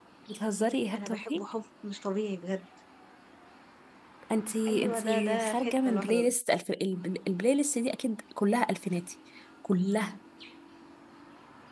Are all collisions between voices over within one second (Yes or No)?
No